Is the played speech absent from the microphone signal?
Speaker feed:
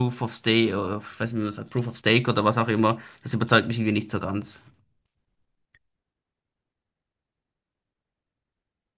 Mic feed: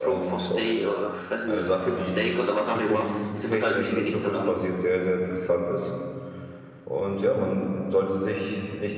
No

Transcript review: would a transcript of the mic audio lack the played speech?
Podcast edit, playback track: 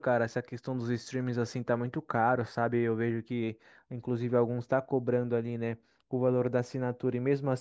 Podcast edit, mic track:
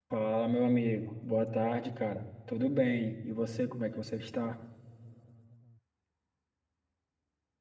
Yes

